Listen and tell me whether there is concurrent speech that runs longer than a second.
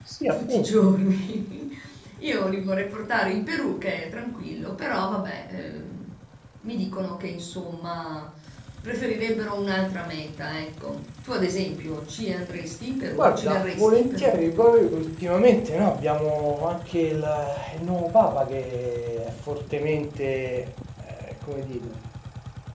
Yes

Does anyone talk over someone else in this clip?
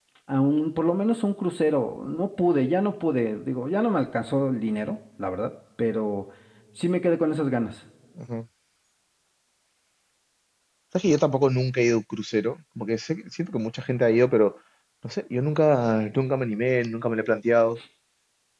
No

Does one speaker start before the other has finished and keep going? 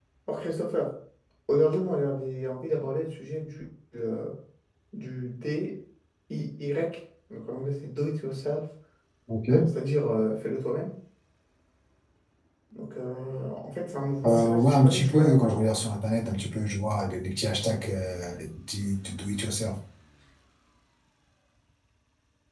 Yes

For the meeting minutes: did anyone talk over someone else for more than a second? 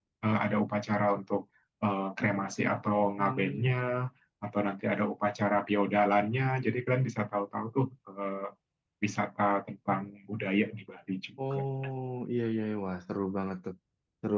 No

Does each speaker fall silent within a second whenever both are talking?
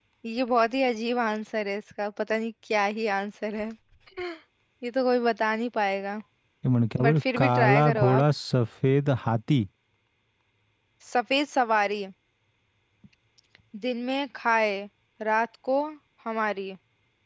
No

